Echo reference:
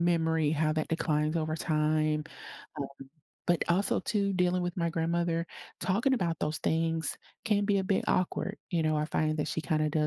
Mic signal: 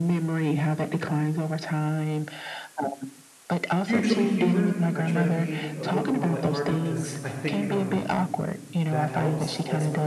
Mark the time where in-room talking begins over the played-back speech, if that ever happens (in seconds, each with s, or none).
3.8 s